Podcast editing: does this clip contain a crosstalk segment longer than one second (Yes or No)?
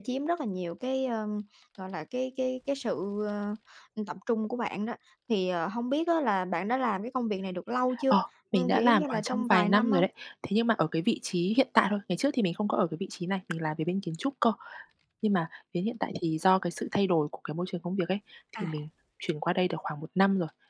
Yes